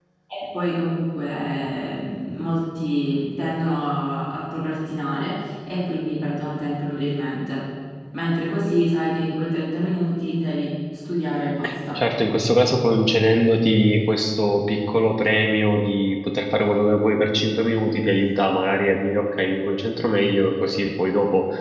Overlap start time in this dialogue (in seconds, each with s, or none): none